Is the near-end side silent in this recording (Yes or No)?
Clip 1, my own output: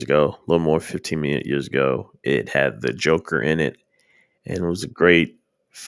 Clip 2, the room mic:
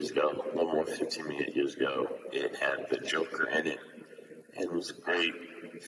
Yes